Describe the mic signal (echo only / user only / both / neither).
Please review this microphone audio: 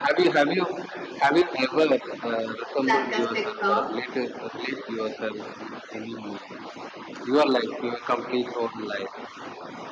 both